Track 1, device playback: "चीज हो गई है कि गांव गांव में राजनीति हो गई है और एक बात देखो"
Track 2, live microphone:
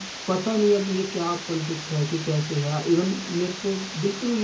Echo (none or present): none